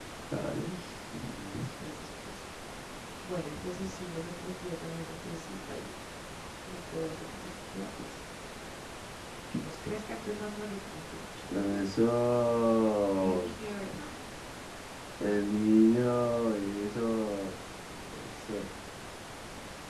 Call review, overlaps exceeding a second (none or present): none